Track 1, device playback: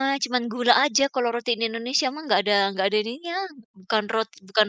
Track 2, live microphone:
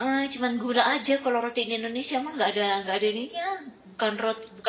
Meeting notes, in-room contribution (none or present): none